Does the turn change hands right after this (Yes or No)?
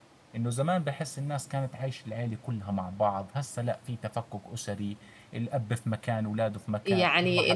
Yes